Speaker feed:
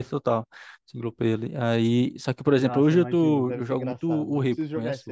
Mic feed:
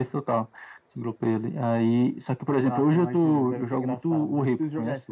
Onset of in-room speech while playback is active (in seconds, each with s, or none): none